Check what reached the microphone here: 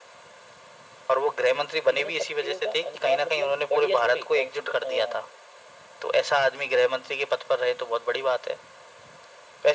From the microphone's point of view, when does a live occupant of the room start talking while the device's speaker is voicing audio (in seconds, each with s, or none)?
none